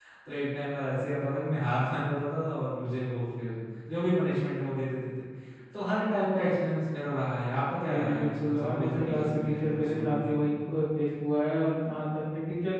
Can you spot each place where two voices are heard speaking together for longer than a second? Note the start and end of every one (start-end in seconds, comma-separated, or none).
7.9-10.2